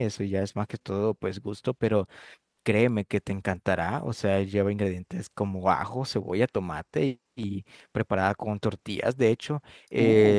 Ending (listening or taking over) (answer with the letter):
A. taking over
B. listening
B